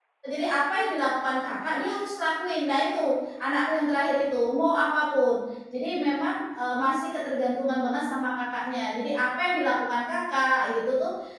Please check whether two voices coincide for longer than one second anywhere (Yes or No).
No